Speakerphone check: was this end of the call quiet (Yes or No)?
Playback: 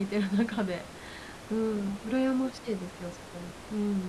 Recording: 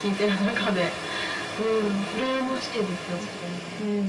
No